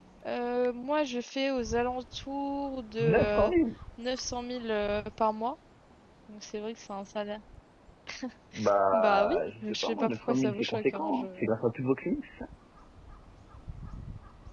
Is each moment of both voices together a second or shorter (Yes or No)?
No